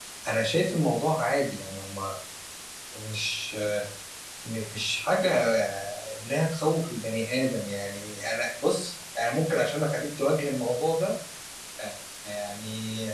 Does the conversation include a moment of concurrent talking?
No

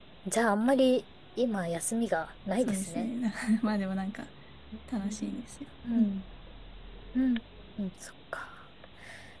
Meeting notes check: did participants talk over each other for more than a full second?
No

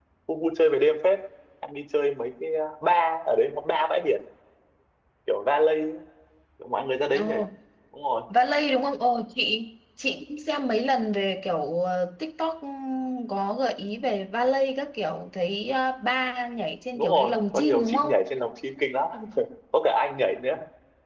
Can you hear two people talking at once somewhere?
Yes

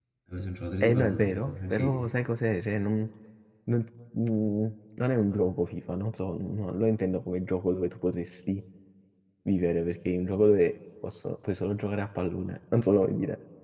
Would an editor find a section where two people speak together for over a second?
Yes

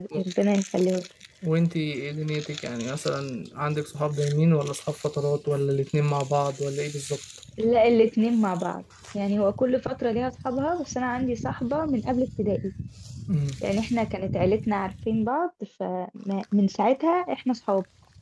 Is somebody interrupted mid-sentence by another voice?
No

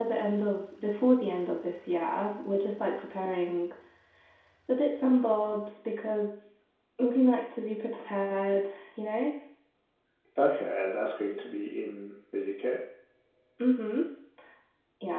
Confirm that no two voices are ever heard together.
Yes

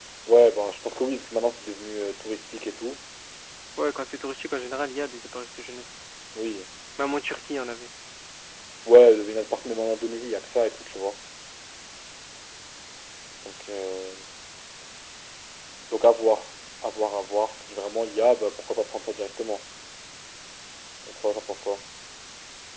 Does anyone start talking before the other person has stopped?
No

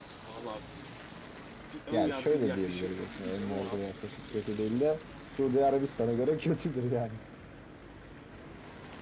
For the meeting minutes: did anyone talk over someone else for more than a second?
Yes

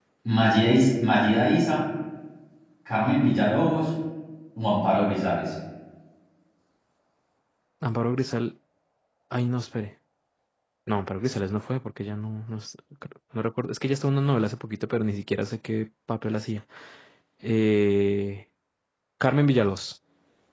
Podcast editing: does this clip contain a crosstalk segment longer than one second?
No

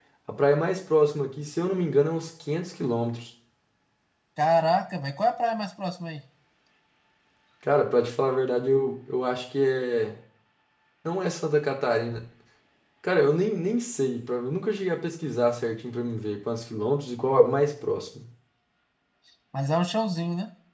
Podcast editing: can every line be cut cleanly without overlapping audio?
Yes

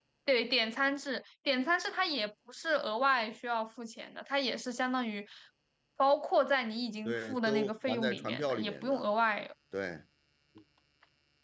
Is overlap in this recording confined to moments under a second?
No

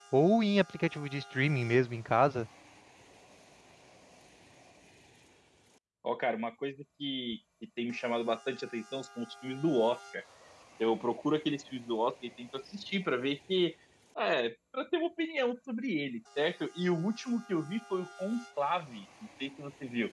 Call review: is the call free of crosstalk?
Yes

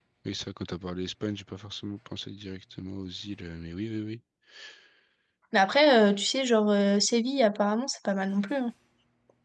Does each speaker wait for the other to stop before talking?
Yes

